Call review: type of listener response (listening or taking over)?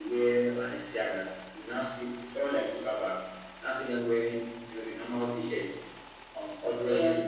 listening